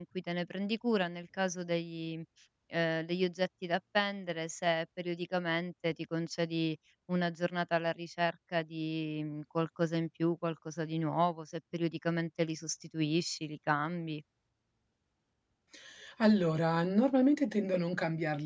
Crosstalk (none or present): none